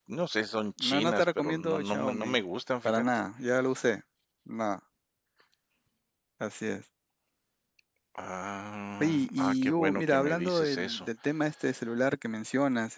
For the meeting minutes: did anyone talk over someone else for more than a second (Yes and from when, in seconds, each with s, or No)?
Yes, from 0.8 s